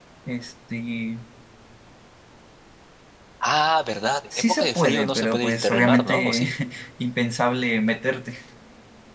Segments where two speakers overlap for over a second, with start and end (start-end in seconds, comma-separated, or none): 4.4-6.5